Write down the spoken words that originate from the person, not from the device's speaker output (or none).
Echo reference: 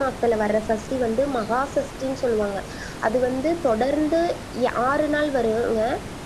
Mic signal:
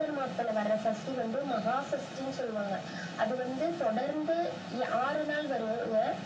none